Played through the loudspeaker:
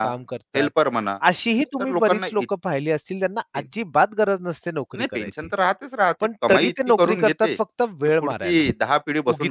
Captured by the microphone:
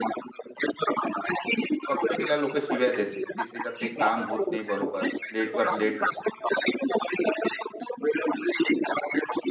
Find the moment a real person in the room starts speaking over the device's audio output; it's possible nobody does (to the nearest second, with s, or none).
2 s